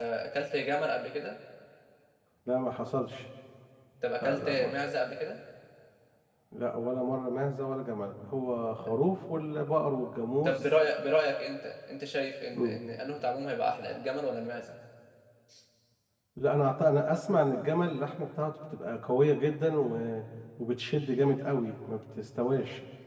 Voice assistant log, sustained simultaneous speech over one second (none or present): none